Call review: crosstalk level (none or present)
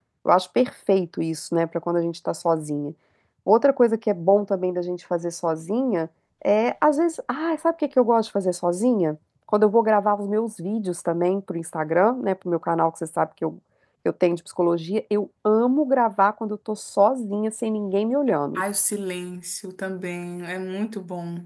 none